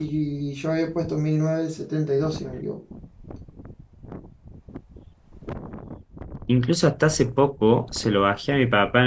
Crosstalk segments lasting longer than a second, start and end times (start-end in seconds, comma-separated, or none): none